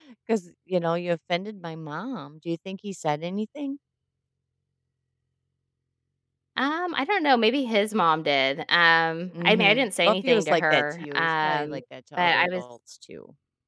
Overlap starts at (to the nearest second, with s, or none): 9 s